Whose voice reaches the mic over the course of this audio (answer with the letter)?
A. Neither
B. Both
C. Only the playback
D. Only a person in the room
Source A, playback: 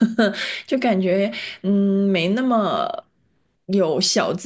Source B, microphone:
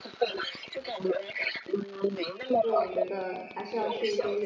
B